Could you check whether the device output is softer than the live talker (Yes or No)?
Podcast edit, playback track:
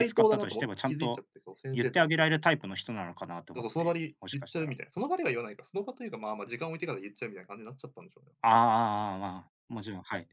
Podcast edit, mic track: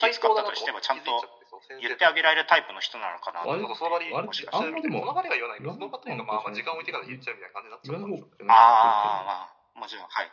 No